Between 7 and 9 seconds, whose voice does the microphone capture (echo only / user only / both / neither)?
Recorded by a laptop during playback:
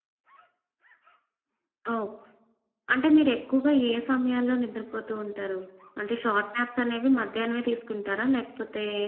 echo only